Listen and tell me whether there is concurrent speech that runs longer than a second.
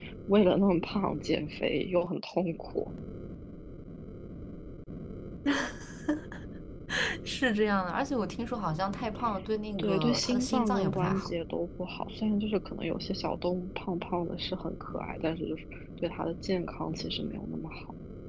Yes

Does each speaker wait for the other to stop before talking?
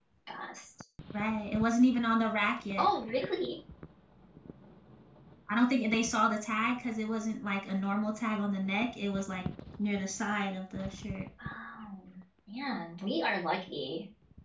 Yes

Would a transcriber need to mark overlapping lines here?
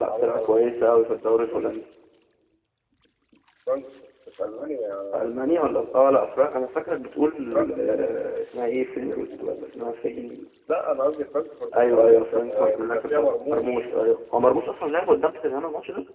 Yes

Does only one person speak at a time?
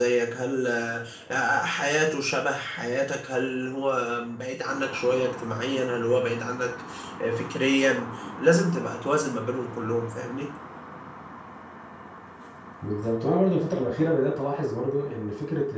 Yes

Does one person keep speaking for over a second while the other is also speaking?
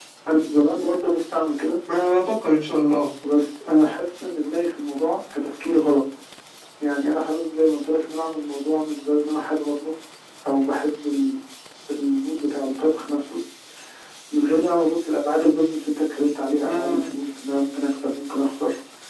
No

